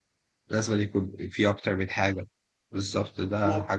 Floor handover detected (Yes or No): No